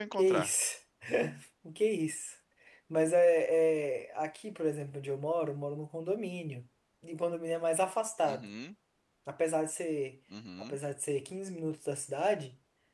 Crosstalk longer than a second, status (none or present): none